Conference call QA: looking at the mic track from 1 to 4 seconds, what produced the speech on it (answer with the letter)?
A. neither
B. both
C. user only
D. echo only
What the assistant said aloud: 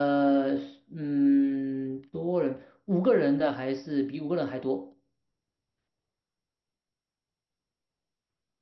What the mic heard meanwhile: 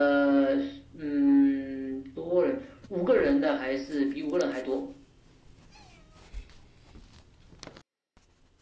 D